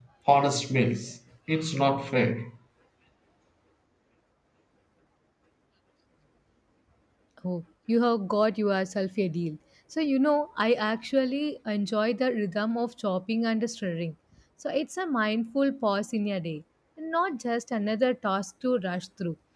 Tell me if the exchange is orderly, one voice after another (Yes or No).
Yes